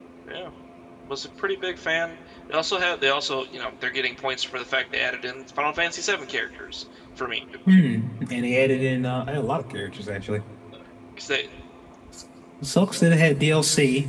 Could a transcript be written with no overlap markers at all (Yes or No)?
Yes